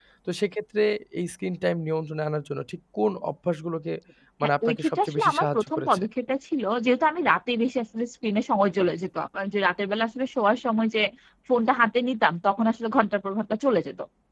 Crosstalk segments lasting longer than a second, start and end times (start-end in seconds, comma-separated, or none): 4.7-6.0